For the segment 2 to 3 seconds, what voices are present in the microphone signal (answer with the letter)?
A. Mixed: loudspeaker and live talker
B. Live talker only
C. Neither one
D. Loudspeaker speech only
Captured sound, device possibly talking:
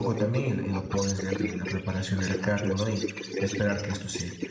A